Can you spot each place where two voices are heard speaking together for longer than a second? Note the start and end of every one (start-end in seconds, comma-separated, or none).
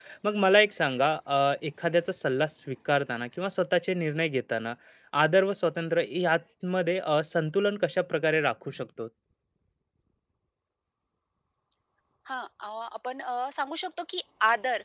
none